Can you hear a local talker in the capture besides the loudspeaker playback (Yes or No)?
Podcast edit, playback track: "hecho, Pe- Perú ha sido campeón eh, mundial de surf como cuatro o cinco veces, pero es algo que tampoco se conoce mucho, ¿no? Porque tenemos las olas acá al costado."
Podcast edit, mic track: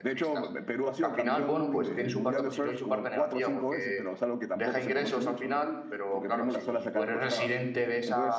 Yes